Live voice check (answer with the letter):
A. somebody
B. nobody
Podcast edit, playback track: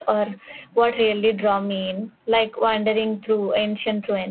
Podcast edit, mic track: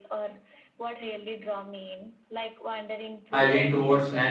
A